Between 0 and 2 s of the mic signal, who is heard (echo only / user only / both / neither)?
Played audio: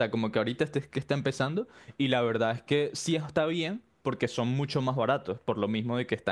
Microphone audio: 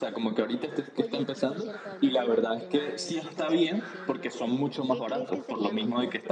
both